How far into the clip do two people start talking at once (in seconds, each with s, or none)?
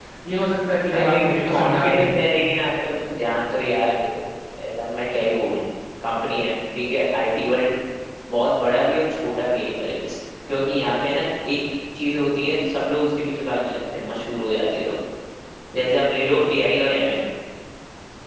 0.9 s